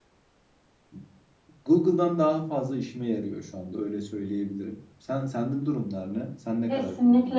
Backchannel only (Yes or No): No